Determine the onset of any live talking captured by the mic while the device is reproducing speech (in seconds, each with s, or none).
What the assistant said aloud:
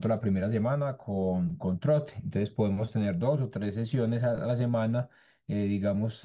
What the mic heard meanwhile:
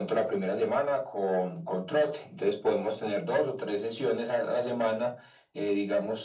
none